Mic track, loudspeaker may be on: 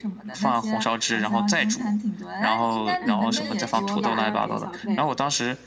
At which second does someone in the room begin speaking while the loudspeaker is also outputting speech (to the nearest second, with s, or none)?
3 s